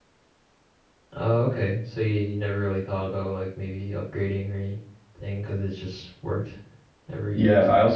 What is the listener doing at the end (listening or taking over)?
taking over